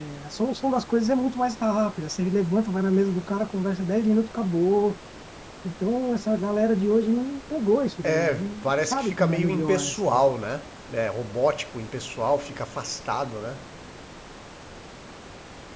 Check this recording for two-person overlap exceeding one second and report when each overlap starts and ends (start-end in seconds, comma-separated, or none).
8.0-10.2